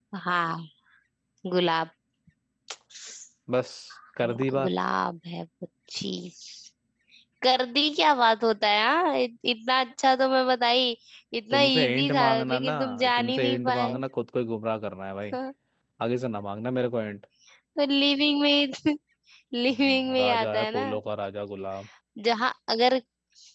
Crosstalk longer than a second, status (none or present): present